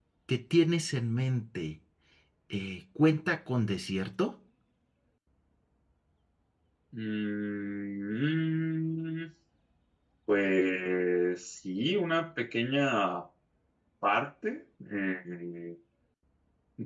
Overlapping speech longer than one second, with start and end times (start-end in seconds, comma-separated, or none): none